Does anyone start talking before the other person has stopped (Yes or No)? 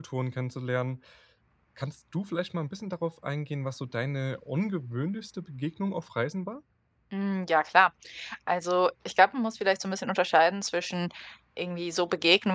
No